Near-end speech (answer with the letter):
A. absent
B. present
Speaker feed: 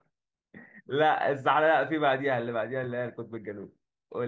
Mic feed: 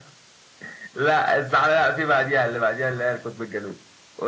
A